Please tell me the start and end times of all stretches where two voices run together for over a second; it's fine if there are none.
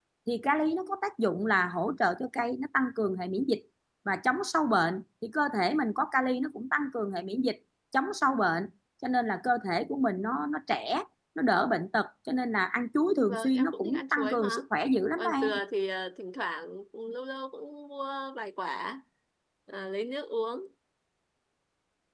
13.3-14.6

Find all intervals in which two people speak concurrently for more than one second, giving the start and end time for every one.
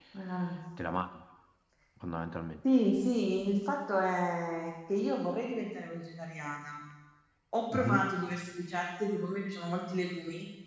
none

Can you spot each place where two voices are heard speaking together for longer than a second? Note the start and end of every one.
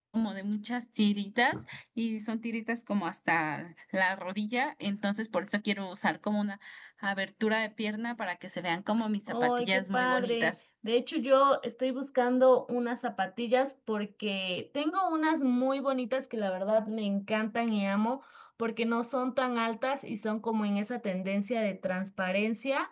9.3-10.5

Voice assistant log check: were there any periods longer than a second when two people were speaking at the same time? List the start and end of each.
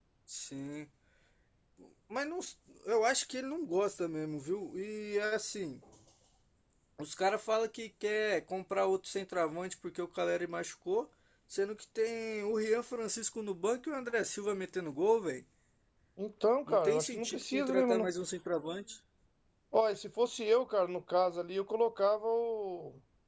16.7-18.1

